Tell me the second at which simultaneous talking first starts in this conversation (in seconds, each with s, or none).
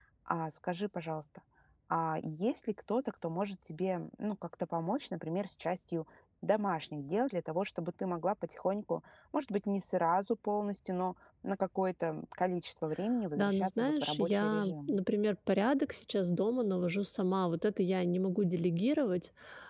13.4 s